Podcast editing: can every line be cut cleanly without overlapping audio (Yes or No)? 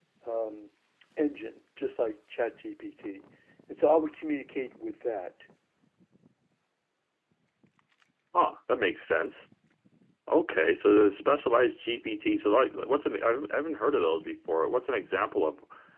Yes